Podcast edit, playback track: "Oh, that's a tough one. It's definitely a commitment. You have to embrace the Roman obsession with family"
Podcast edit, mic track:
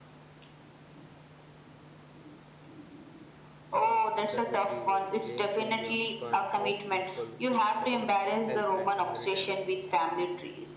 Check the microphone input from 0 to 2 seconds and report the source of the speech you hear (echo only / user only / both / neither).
neither